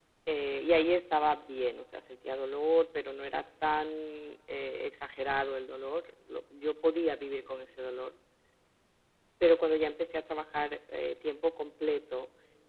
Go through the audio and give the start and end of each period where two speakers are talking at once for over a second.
none

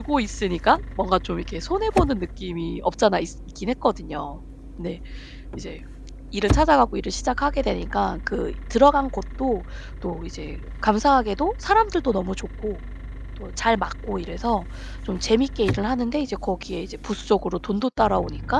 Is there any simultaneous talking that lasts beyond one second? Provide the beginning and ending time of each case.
none

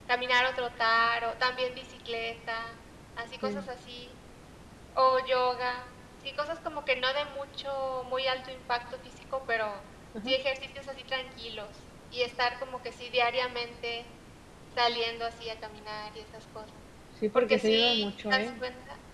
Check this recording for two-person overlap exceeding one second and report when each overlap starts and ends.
17.4-18.6

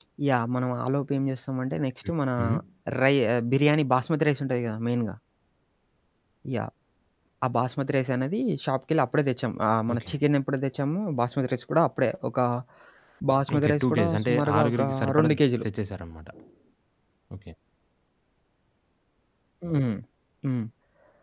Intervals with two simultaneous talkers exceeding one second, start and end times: 13.6-15.6

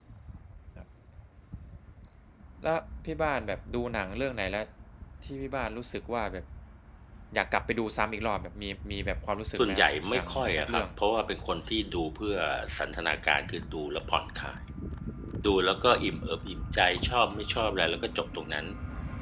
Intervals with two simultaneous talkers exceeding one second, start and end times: 9.6-10.9

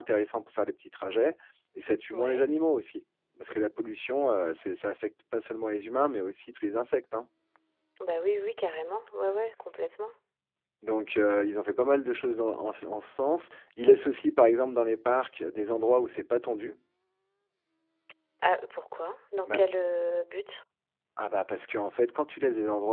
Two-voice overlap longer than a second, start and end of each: none

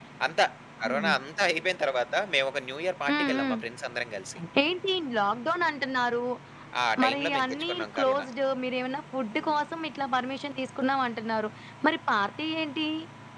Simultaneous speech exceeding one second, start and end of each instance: 7.0-8.3

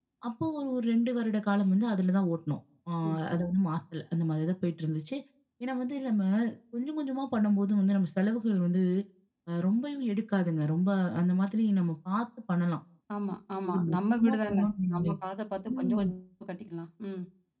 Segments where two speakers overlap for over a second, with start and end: 13.7-15.2

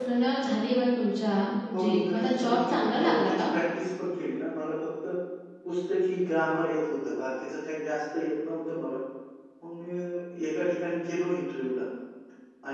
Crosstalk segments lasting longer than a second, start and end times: 1.7-3.4

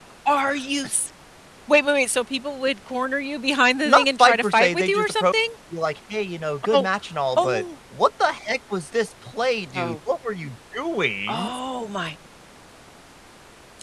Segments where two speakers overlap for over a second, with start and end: 3.9-5.2

